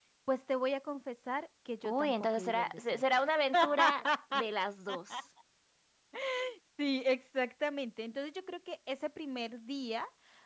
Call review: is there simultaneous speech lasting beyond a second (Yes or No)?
Yes